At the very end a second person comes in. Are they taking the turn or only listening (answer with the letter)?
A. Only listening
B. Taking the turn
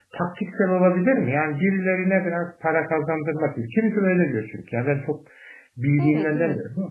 B